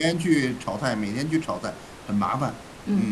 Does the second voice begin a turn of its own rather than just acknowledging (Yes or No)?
Yes